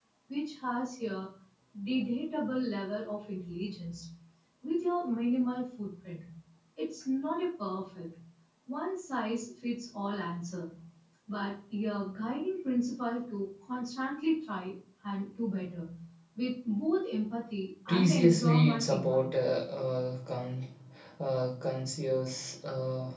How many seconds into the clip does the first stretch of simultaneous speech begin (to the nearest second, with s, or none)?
18 s